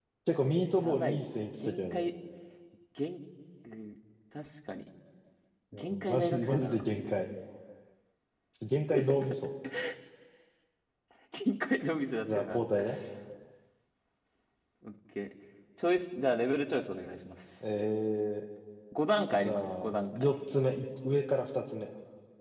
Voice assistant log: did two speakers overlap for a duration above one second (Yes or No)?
Yes